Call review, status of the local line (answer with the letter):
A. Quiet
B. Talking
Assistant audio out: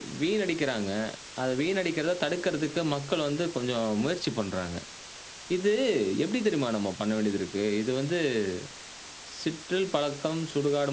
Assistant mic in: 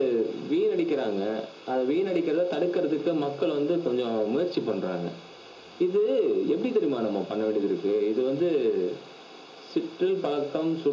A